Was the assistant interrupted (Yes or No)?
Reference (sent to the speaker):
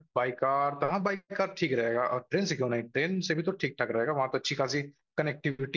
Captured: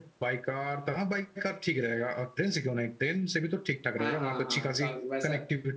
Yes